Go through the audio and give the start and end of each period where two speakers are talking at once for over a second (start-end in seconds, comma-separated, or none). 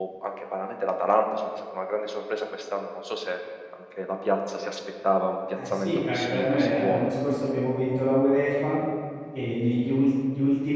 5.7-7.1